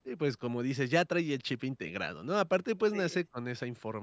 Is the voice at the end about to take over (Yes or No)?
No